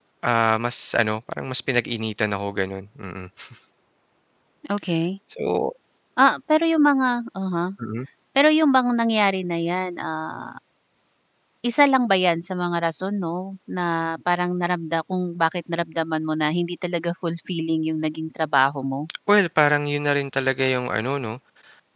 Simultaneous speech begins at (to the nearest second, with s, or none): none